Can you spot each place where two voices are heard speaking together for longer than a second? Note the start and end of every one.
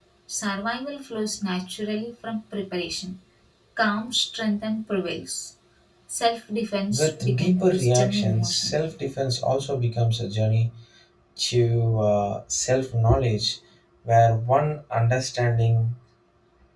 6.9-8.8

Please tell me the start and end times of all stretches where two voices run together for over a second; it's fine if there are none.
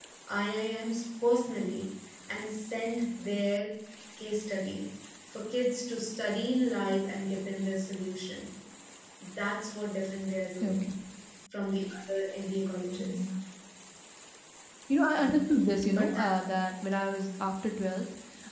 none

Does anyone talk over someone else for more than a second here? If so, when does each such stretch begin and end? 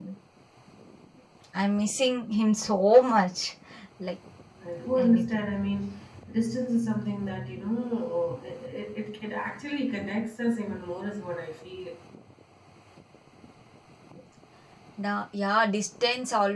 none

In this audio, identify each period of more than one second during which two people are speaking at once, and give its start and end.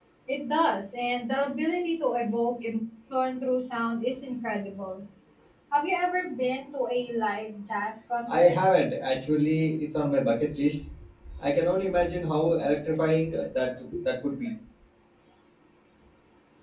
none

